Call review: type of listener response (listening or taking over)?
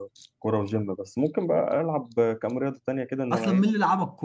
taking over